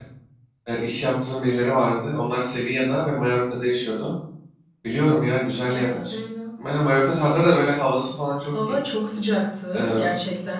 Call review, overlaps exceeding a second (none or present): none